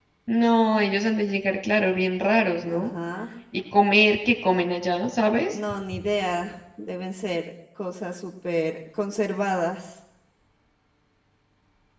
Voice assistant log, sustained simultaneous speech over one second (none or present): none